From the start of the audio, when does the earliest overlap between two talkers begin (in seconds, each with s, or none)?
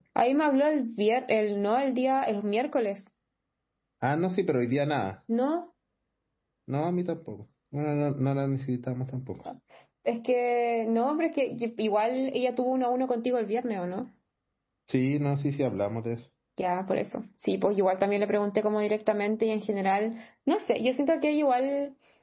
none